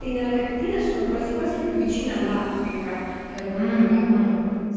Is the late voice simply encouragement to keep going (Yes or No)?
No